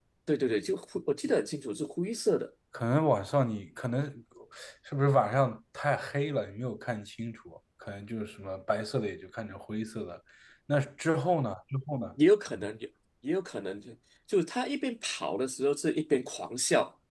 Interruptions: none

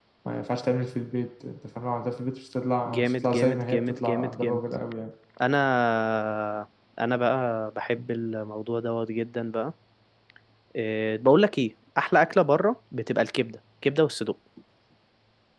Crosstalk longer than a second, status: present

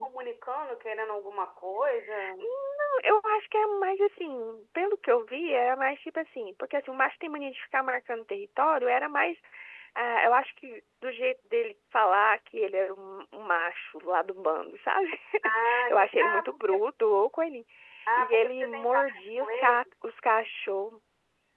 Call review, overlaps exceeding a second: present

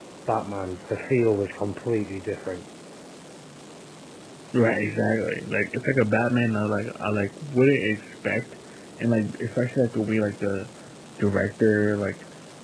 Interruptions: none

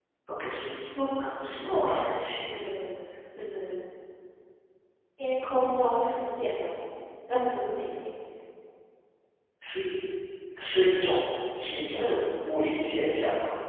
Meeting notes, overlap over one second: present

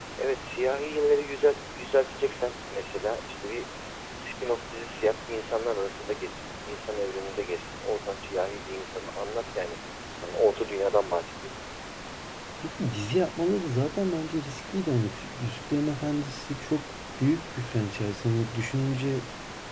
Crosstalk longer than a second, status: none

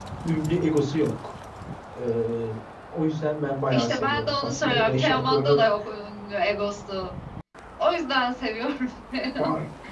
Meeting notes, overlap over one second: present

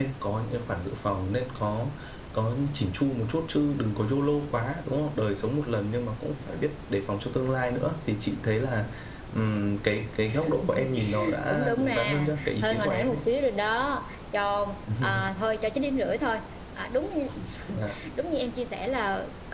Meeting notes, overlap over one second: present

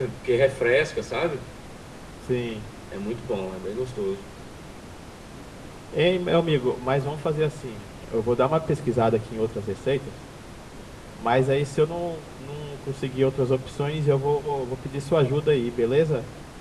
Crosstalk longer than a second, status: none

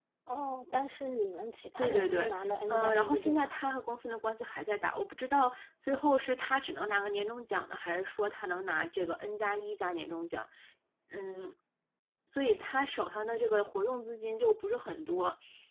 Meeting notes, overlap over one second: present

